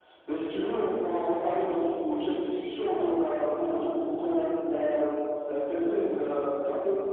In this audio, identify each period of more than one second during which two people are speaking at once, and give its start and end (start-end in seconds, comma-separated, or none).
1.6-3.1